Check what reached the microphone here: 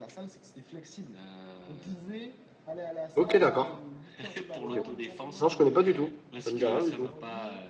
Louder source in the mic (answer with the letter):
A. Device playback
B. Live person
B